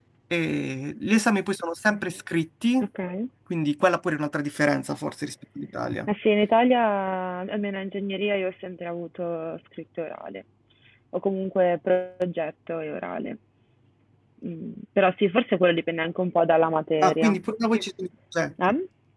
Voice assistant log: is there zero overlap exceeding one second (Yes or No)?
Yes